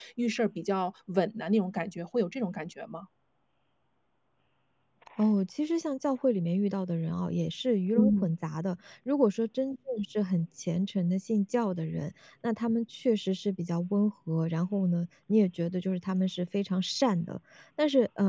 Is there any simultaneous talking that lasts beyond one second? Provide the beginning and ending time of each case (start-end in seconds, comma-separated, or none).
none